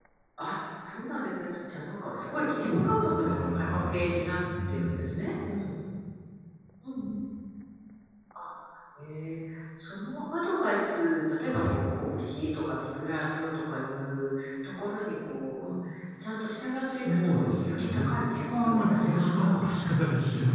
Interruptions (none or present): present